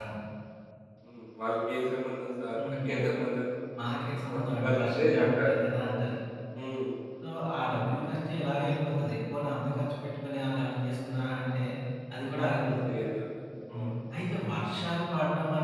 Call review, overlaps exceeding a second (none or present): present